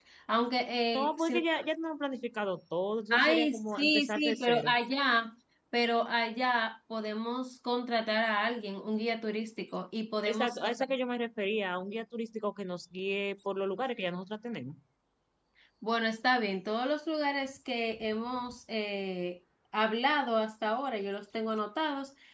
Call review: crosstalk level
present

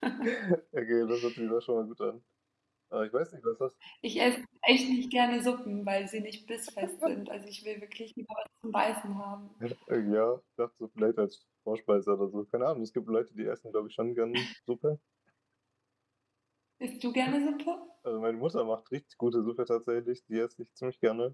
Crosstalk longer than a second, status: none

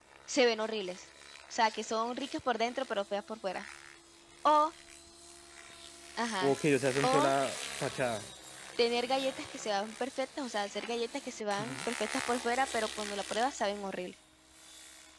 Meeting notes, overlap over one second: none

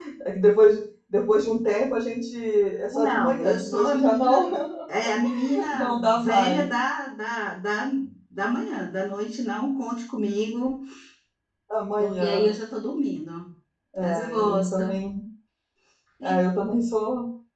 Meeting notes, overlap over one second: present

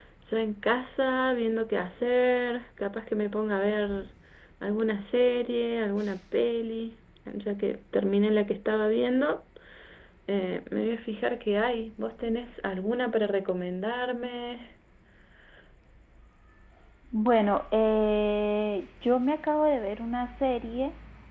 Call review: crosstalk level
none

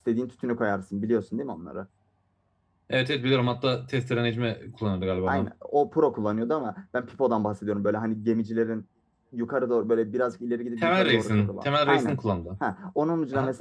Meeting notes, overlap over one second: present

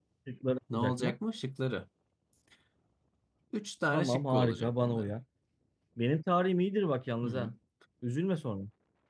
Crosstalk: present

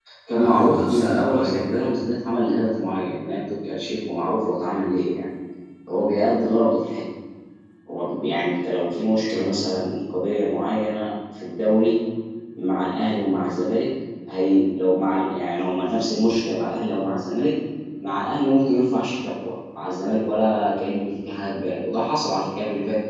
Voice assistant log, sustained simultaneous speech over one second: present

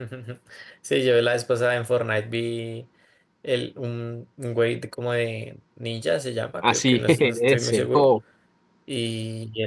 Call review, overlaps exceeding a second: present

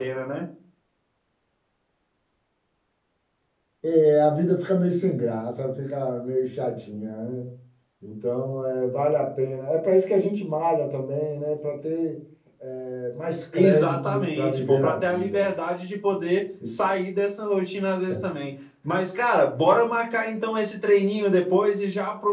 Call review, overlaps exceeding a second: present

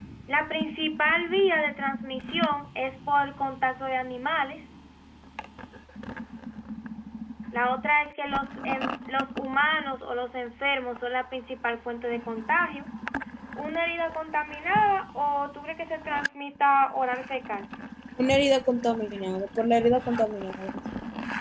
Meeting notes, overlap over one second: none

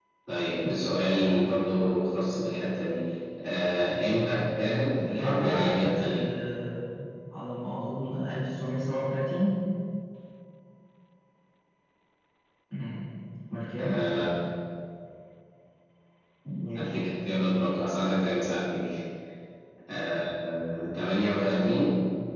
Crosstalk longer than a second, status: present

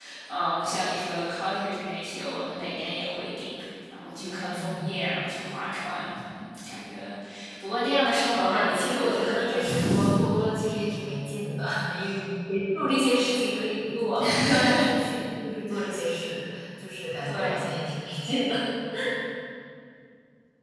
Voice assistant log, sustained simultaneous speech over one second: present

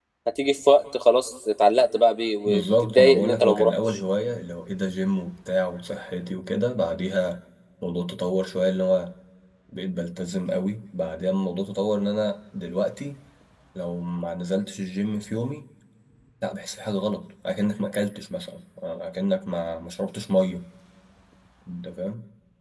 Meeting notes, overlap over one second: present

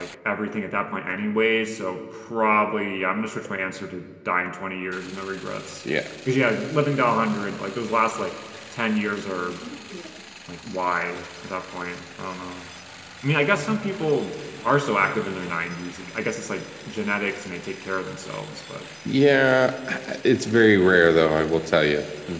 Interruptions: none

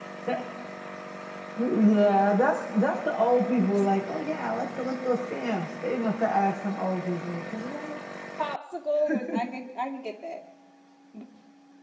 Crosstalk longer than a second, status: none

